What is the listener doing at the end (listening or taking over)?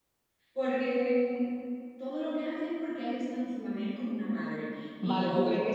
taking over